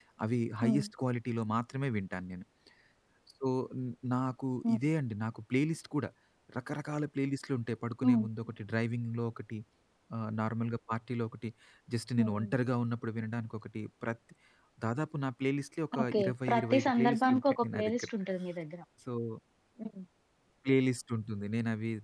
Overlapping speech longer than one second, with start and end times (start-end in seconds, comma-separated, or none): 16.0-18.1